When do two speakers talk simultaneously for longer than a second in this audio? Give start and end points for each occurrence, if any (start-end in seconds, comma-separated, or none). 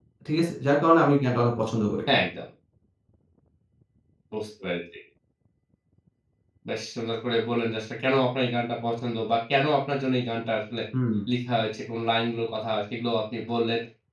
none